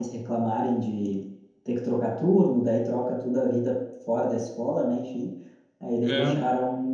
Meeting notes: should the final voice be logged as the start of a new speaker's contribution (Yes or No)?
No